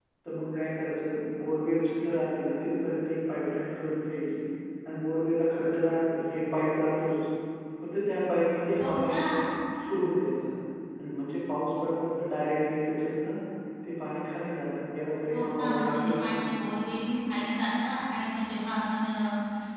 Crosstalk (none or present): present